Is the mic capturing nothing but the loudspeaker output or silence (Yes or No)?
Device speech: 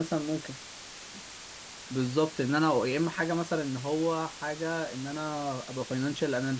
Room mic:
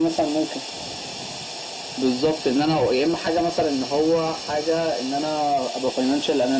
Yes